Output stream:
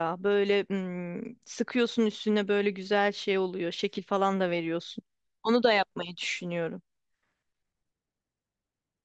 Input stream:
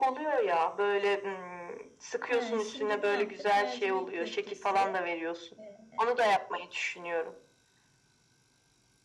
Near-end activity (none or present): present